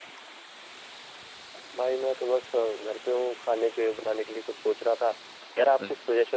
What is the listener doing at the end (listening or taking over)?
listening